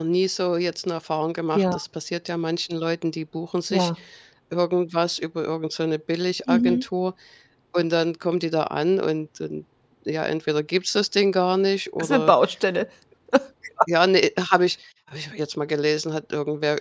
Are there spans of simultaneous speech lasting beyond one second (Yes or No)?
No